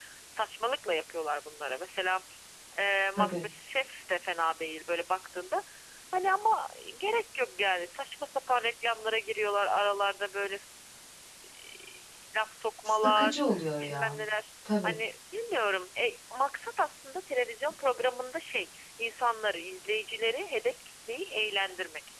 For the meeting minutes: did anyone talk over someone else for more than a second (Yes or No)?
Yes